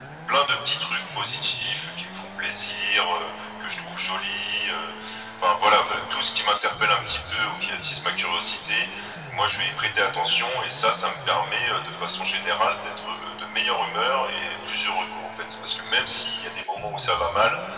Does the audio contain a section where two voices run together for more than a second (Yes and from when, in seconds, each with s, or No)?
No